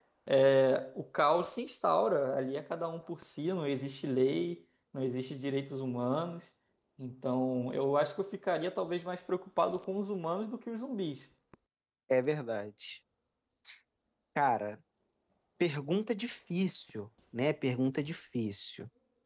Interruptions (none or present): none